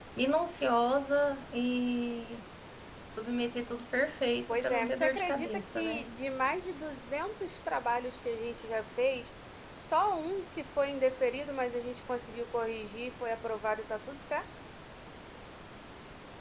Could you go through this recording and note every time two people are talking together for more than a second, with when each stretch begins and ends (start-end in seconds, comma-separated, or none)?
4.5-6.0